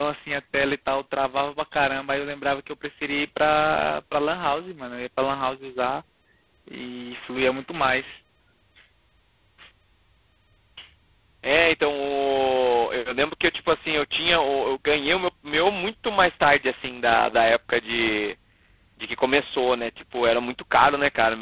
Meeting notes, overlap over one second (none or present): none